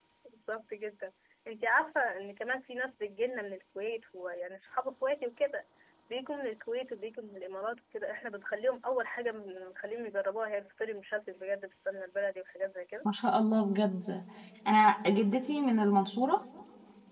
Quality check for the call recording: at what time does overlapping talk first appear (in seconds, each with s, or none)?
none